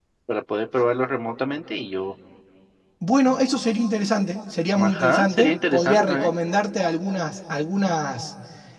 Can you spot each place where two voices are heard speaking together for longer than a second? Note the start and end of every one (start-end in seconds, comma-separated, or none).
4.8-6.3